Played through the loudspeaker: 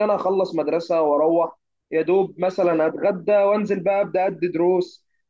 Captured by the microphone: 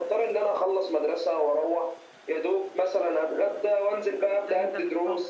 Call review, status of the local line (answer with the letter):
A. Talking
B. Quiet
A